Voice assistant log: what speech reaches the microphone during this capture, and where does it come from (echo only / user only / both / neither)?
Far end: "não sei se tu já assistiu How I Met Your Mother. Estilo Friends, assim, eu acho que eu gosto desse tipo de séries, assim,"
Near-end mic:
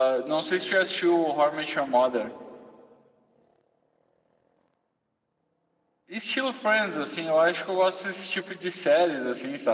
echo only